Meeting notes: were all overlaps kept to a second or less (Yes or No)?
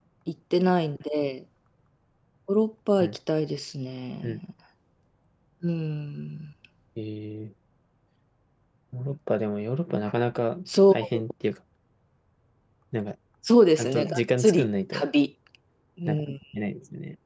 No